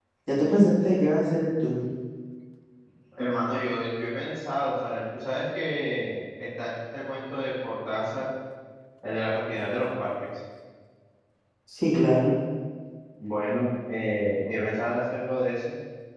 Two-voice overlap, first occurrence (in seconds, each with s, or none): none